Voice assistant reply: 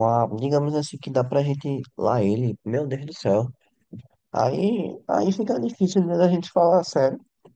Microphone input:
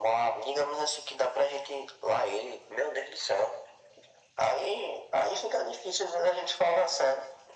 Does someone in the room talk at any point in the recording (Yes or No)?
No